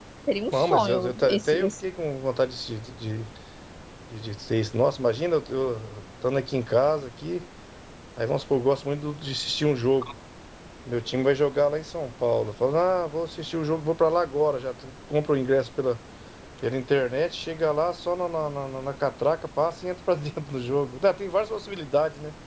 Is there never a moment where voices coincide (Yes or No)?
No